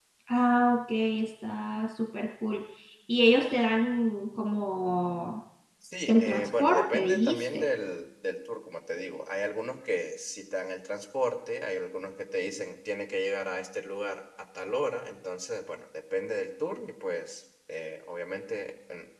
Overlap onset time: 6.1 s

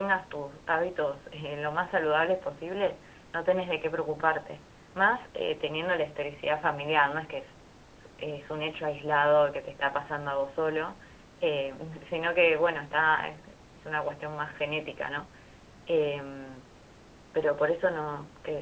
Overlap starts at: none

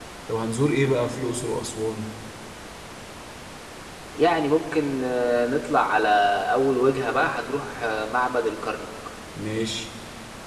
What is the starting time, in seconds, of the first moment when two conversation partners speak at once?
none

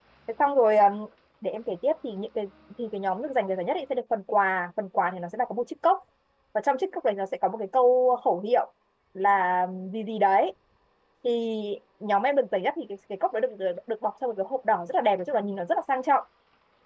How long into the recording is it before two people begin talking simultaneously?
none

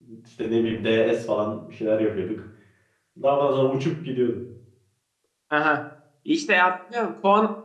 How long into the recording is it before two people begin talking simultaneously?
none

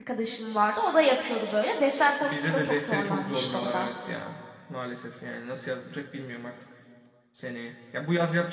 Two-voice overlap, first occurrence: 2.2 s

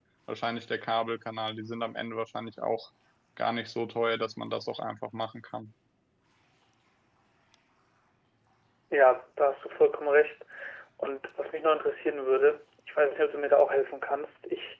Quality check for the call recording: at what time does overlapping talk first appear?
none

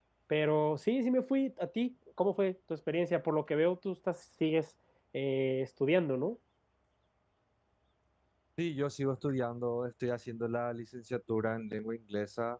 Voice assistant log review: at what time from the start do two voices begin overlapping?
none

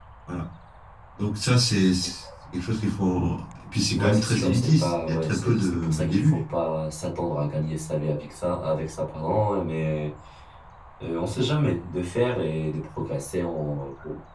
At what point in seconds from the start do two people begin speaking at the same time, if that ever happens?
4.0 s

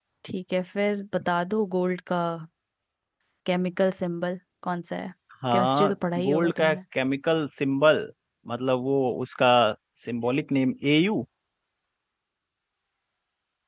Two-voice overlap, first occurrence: 5.5 s

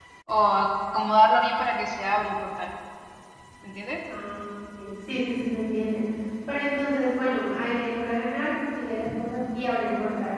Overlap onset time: none

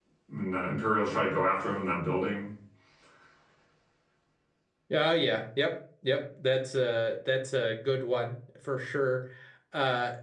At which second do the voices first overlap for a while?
none

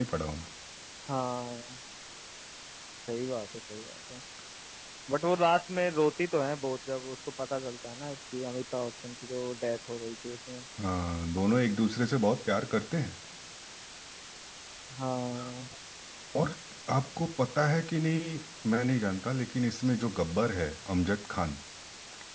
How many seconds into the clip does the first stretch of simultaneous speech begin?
none

